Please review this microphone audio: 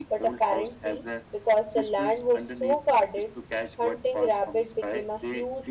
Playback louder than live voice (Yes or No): No